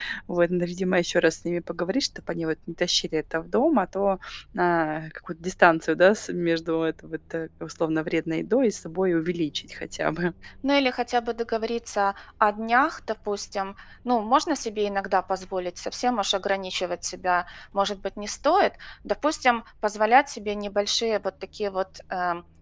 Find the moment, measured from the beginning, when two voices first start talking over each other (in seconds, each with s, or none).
none